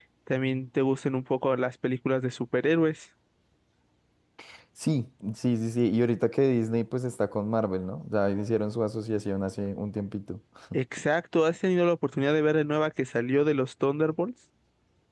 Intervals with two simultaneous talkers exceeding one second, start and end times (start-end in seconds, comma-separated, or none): none